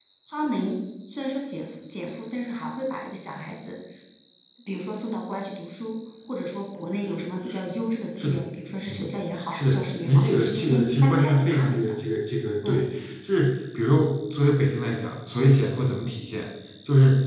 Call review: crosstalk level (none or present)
present